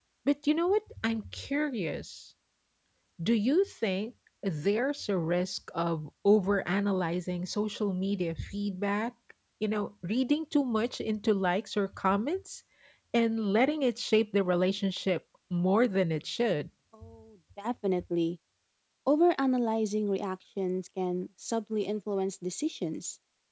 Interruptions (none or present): none